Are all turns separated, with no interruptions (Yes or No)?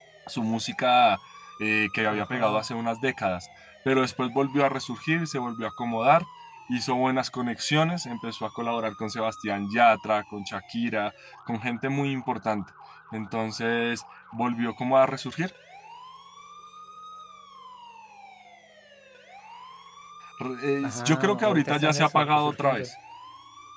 No